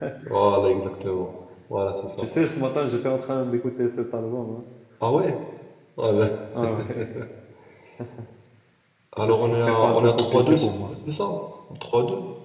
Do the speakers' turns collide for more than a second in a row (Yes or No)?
Yes